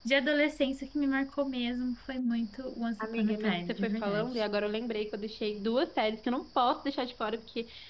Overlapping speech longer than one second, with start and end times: 3.0-4.4

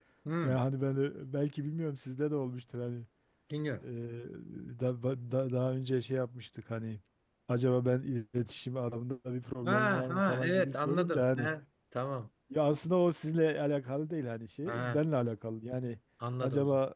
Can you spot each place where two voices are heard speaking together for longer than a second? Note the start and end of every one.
9.7-11.5

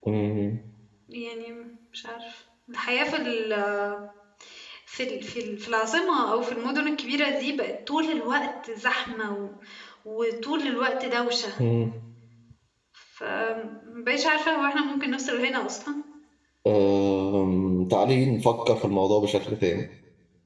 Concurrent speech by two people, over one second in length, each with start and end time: none

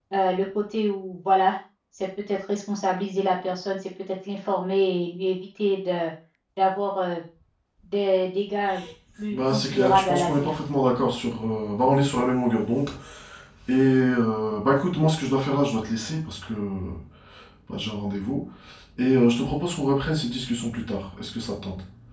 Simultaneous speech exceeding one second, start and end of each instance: 9.3-10.5

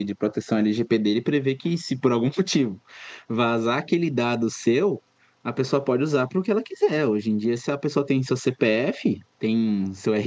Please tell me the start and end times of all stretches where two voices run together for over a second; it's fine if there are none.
none

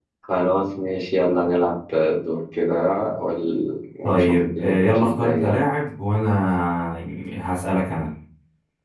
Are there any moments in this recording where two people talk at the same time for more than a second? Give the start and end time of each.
4.0-5.6

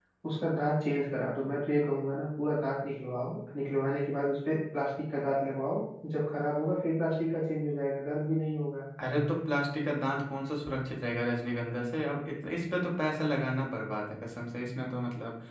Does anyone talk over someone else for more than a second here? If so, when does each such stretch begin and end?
none

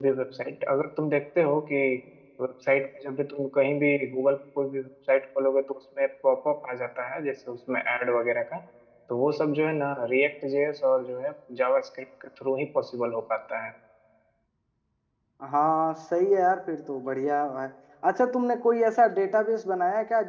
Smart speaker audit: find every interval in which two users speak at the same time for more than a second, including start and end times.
none

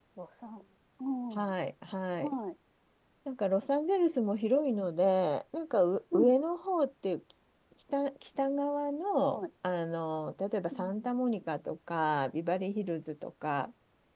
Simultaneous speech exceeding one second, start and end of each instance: none

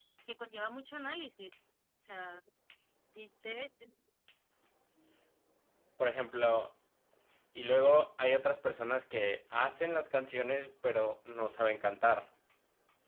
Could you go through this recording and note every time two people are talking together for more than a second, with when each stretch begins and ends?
none

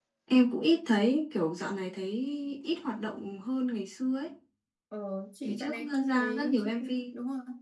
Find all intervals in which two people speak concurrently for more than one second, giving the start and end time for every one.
5.4-6.7

